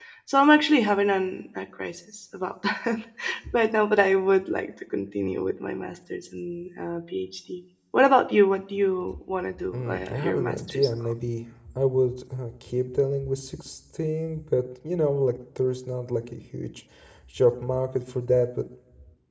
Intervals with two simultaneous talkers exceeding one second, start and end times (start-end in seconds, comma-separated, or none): 9.7-11.1